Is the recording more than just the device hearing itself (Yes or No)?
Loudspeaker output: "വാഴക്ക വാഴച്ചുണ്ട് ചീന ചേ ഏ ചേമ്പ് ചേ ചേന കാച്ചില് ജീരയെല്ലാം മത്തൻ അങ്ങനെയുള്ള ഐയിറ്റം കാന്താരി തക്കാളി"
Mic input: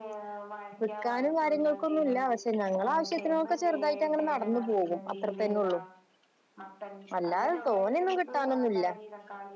Yes